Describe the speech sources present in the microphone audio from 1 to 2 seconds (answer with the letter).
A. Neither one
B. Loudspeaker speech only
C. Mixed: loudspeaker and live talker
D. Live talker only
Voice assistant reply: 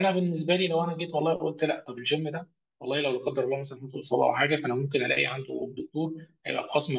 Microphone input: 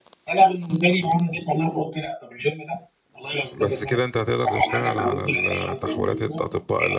B